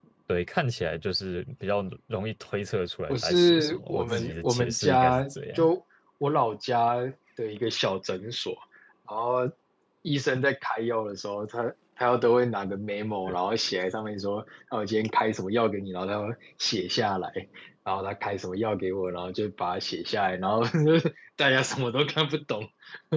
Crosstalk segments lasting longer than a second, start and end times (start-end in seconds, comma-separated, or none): 3.1-5.7